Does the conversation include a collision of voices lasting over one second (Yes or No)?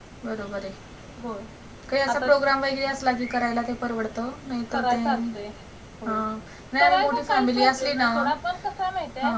Yes